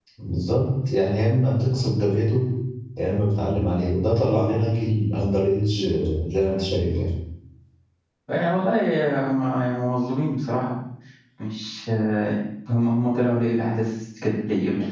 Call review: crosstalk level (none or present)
none